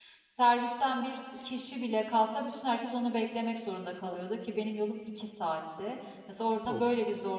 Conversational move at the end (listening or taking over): listening